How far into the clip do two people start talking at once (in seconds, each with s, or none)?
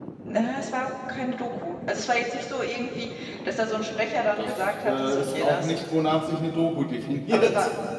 4.4 s